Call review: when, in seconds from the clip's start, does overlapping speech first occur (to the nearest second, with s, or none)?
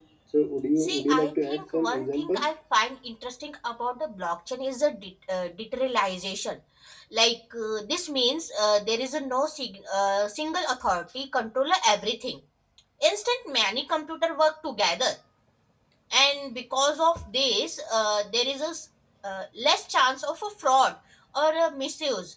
1 s